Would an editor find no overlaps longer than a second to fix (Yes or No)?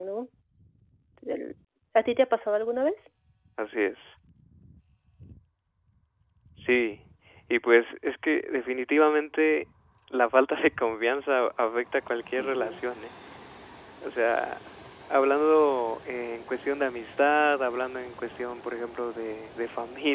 Yes